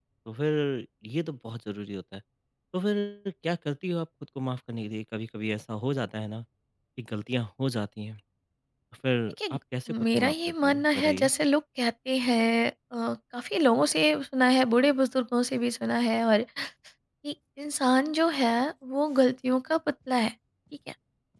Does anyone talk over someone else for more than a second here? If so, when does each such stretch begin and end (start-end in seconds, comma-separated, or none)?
10.0-11.3